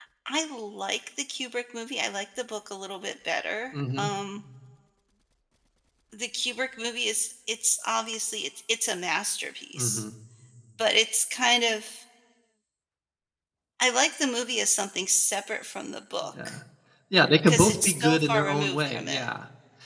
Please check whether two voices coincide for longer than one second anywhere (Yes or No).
Yes